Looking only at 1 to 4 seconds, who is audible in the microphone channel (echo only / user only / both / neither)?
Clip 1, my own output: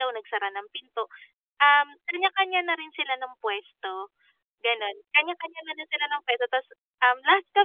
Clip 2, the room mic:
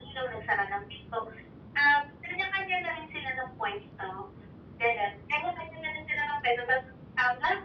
echo only